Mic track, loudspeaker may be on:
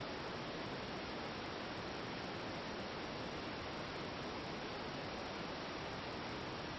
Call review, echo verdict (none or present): none